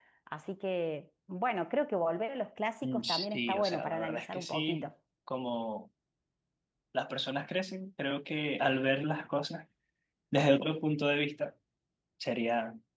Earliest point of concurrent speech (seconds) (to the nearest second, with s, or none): 3 s